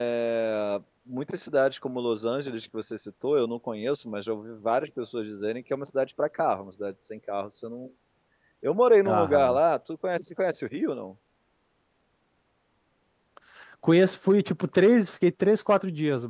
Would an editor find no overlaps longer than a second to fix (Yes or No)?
Yes